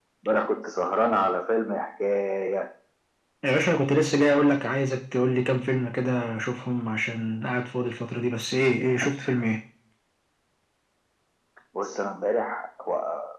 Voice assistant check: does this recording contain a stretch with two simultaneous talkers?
No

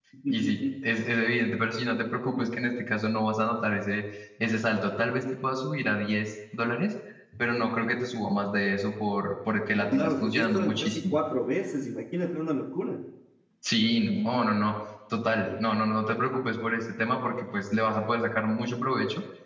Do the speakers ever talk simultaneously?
Yes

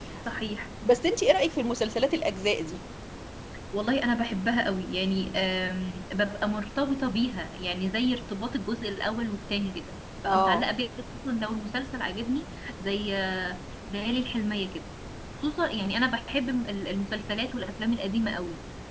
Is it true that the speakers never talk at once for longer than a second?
Yes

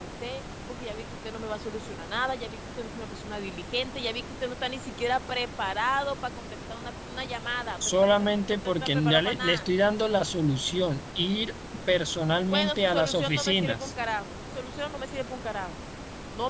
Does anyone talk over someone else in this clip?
Yes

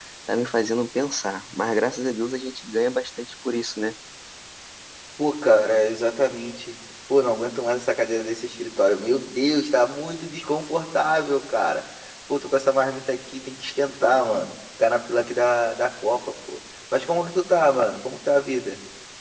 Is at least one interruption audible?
No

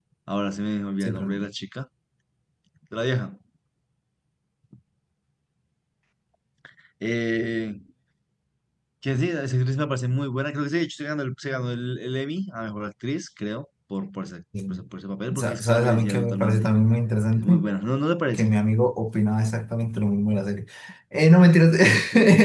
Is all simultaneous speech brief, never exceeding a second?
No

